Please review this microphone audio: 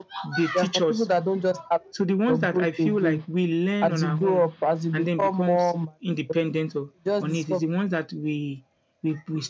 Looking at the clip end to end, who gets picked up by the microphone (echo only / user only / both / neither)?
echo only